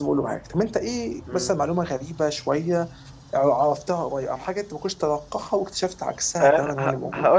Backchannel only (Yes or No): No